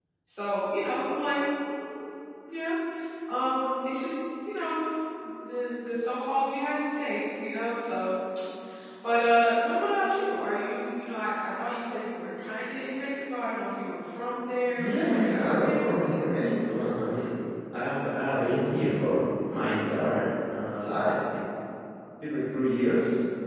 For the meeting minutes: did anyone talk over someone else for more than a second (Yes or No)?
Yes